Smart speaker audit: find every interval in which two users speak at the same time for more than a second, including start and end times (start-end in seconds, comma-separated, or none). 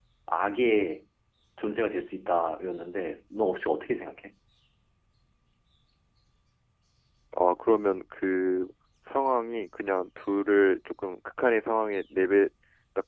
none